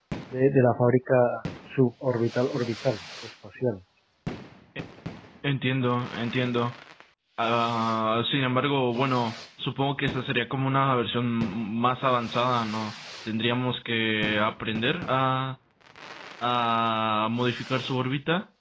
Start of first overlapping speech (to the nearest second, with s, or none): none